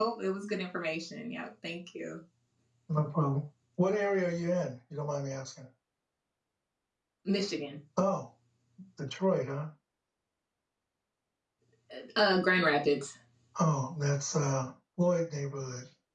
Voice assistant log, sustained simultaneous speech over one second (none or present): none